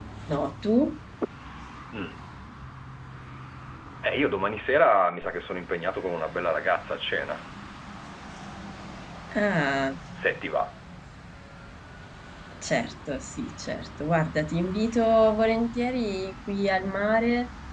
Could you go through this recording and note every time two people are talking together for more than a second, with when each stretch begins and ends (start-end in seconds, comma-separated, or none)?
none